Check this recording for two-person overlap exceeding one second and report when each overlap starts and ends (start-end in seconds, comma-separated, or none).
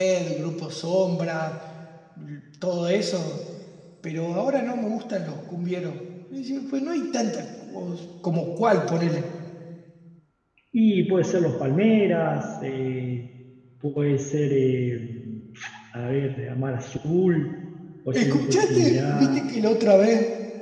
18.1-19.4